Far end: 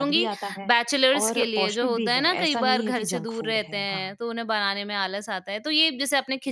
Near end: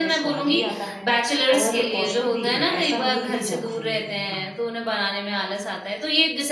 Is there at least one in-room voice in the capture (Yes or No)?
No